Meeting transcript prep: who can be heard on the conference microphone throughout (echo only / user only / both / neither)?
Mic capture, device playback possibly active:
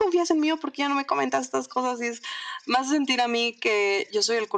echo only